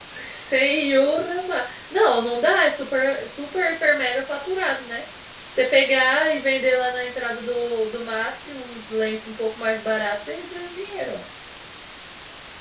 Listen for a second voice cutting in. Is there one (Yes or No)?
No